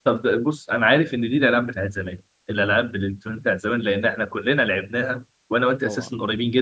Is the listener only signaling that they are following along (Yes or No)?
Yes